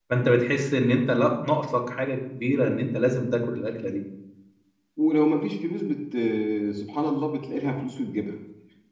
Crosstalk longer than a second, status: none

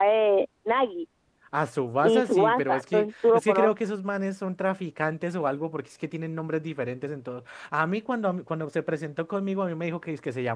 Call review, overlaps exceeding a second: present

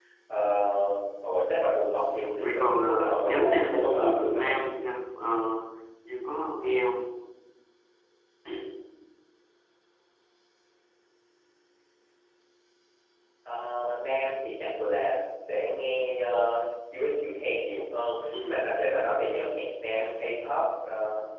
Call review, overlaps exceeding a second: present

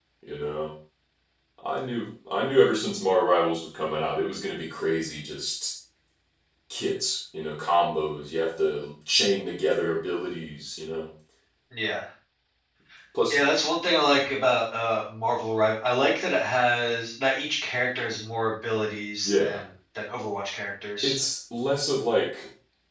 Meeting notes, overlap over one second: none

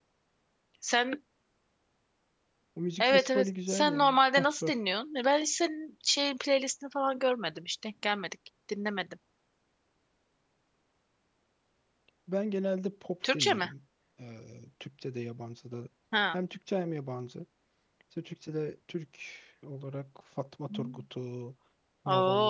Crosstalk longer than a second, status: present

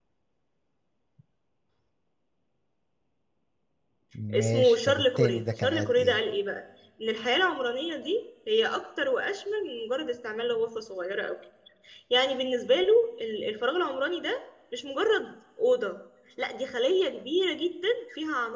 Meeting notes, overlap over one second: present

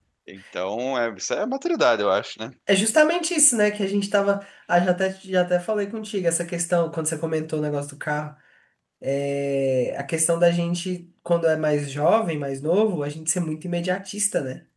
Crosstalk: none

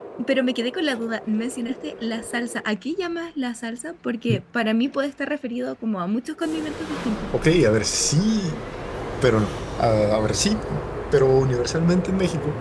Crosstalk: none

